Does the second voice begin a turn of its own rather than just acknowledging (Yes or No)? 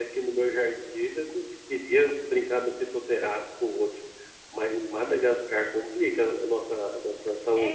Yes